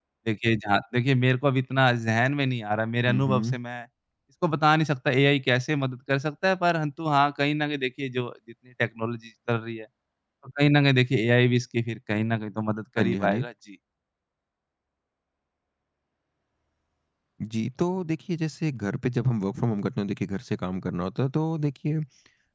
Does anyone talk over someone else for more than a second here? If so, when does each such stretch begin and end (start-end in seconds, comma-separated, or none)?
none